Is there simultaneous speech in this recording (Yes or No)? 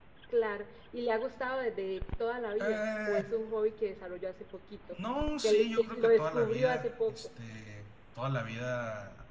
Yes